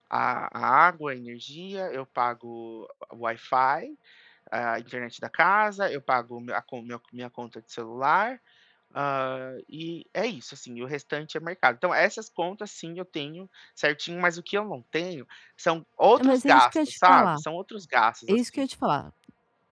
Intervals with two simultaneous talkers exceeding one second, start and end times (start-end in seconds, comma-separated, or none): 16.2-17.4